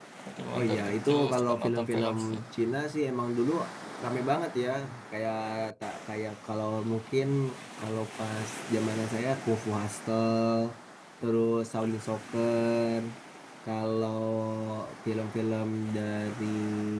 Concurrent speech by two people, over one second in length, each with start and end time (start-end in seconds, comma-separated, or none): 0.5-2.2